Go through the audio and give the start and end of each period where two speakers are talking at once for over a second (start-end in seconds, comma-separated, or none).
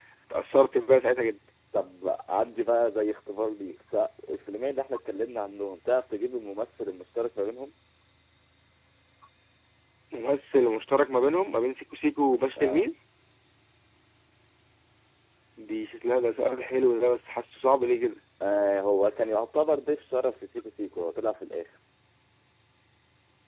none